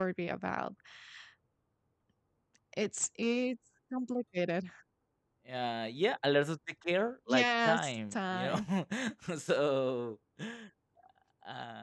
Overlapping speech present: Yes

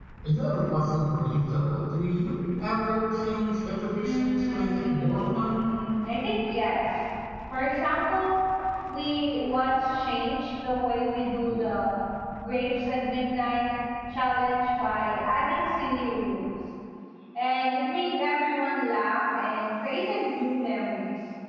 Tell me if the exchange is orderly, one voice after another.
No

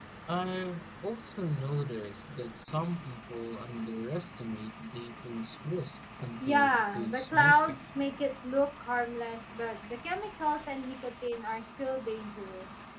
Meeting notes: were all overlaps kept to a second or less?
No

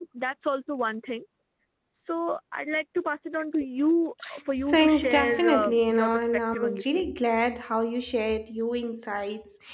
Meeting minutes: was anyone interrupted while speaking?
Yes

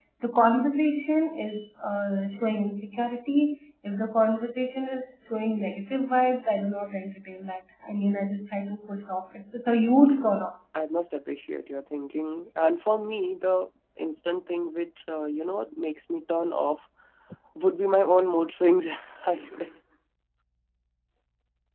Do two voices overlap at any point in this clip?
No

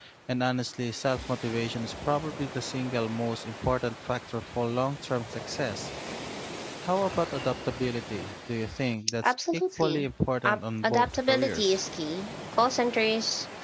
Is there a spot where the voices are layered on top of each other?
Yes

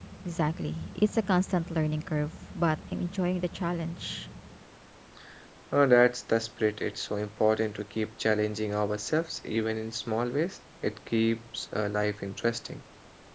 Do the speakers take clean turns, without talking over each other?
Yes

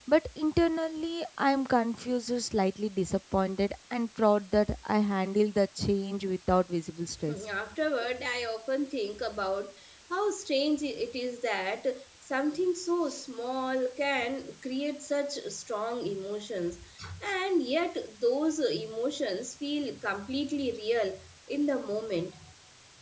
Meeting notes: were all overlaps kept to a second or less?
Yes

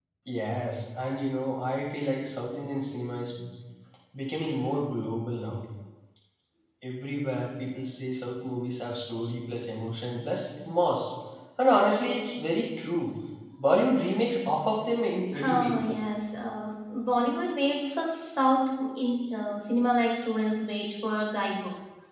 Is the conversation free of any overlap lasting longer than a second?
Yes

